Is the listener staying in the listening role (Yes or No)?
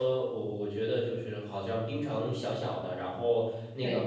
Yes